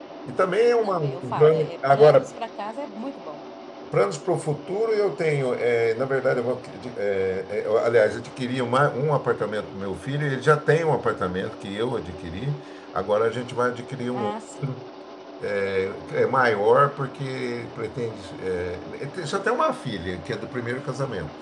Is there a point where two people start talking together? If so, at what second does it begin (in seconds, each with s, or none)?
0.7 s